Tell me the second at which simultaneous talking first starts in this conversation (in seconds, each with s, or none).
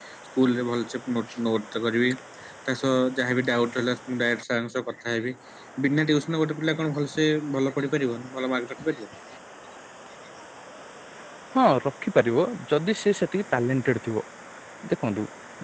none